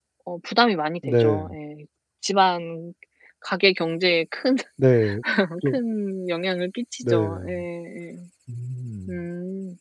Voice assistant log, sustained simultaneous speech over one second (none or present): none